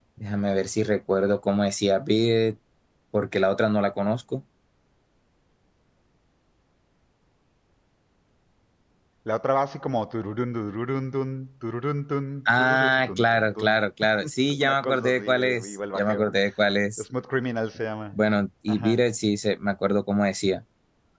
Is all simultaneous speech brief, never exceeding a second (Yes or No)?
No